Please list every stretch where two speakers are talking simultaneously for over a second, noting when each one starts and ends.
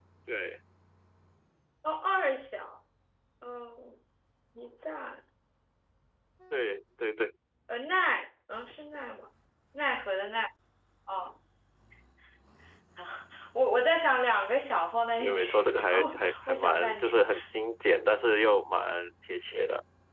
15.2-17.3

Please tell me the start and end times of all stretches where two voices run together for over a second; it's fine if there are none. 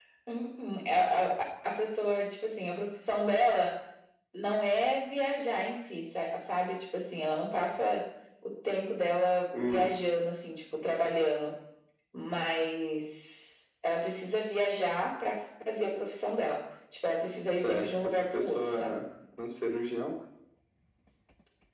17.5-19.0

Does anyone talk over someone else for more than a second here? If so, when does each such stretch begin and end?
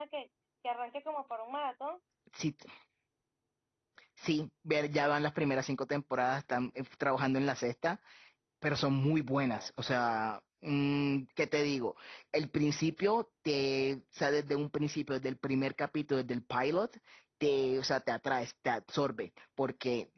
none

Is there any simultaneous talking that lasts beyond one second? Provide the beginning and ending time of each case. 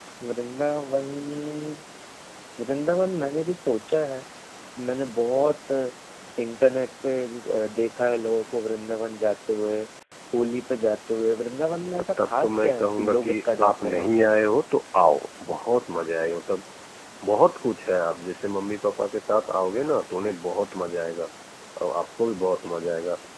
12.2-14.3

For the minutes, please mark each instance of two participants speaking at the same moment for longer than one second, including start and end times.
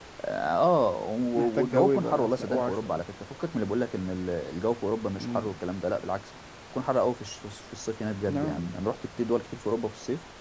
1.3-3.0

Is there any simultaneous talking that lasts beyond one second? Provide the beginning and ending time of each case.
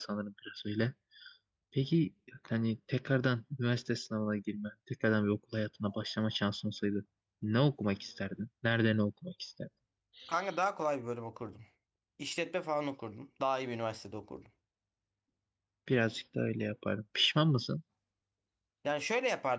none

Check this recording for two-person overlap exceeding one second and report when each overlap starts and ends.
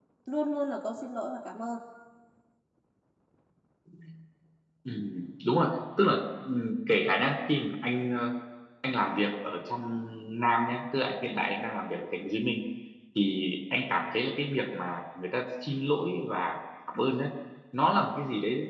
none

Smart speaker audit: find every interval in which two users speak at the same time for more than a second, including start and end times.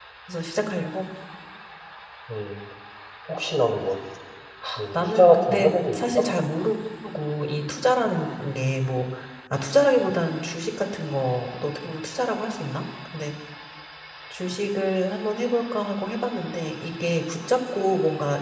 5.0-6.2

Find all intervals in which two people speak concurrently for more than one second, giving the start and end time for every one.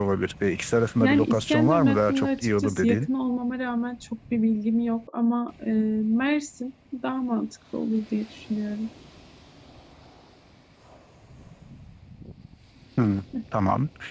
1.0-3.1

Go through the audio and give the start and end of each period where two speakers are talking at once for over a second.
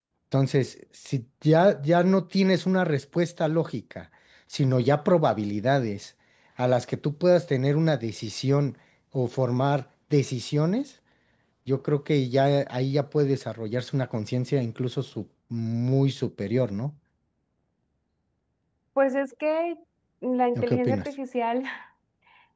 none

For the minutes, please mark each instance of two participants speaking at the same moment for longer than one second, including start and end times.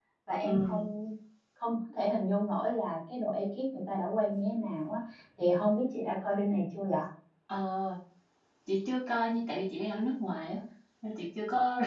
none

